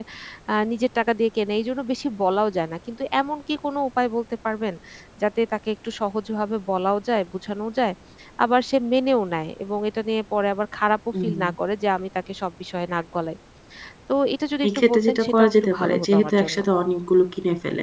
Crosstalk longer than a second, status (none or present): present